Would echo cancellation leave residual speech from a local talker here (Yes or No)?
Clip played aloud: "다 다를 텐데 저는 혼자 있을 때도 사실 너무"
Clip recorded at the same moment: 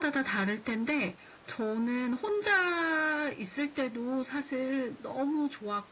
No